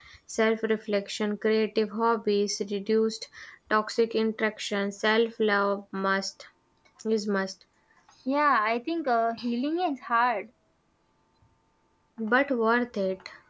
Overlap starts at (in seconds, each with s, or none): none